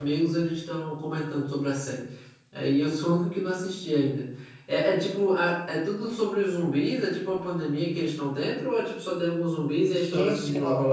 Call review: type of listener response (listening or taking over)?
taking over